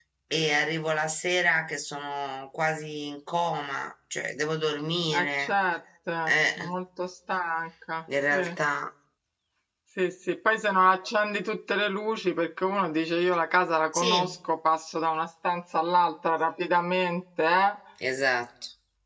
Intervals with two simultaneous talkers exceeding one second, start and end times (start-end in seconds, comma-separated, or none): none